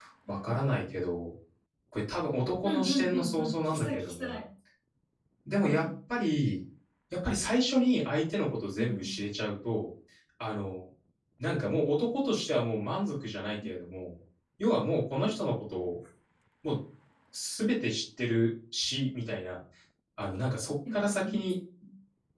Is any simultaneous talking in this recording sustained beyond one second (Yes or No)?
Yes